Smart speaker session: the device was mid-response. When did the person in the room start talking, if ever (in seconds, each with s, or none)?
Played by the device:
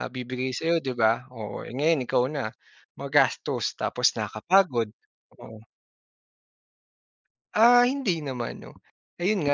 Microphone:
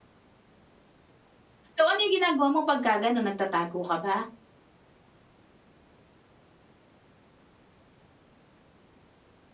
1.8 s